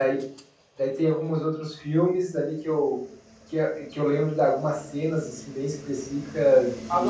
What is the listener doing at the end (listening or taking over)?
taking over